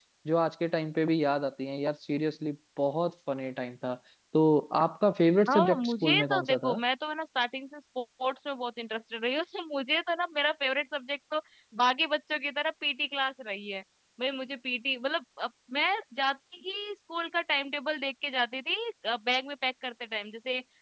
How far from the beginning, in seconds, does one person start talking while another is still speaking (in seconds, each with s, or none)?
5.5 s